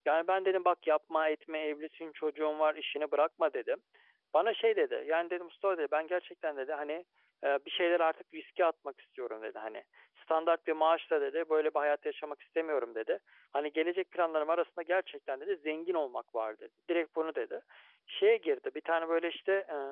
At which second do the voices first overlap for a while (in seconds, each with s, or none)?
none